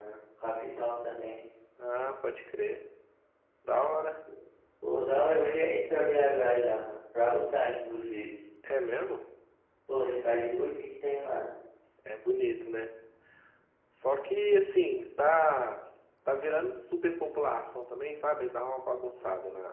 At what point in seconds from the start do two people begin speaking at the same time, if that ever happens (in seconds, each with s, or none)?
none